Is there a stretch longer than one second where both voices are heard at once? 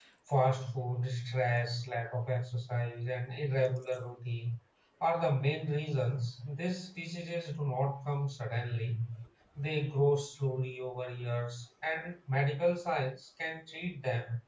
No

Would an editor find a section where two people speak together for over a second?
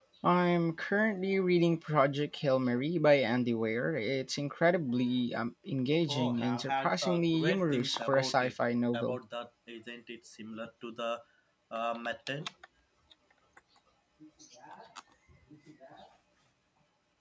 Yes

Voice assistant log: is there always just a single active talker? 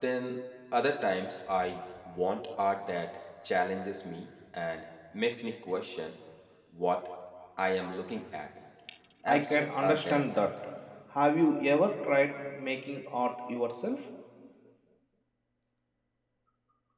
No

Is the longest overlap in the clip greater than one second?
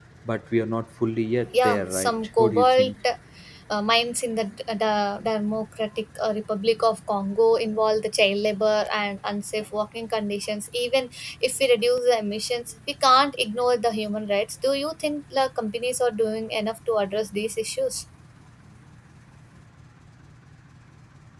Yes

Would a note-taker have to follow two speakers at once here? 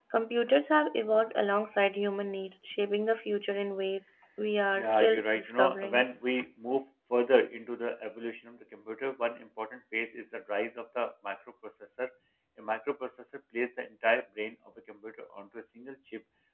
Yes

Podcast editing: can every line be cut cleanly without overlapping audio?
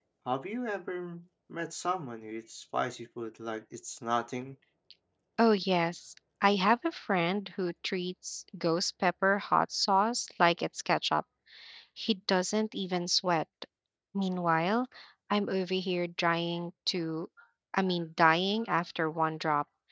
Yes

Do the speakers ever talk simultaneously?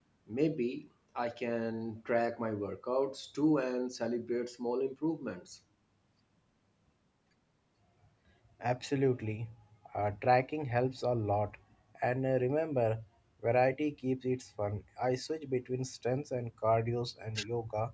No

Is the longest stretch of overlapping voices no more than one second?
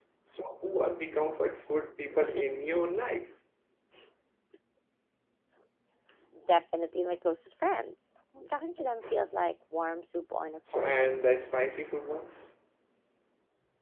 Yes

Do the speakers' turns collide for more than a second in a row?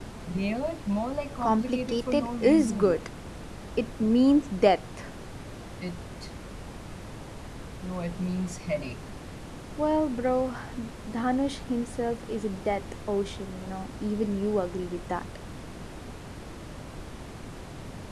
Yes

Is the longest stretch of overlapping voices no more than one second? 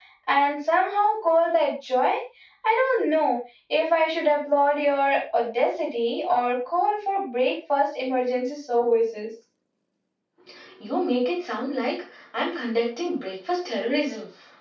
Yes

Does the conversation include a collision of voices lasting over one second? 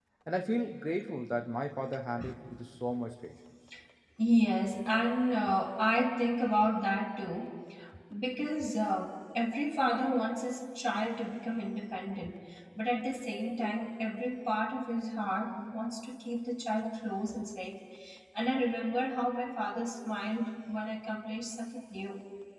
No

